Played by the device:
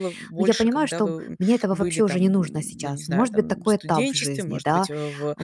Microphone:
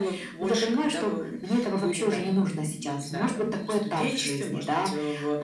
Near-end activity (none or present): none